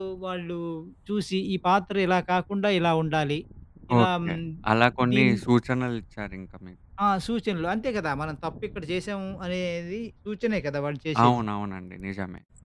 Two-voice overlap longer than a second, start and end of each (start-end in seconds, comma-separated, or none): none